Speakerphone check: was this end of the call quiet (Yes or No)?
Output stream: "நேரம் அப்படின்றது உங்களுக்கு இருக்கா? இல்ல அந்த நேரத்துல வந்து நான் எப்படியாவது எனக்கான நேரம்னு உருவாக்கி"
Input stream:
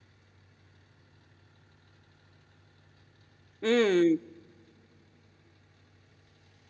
No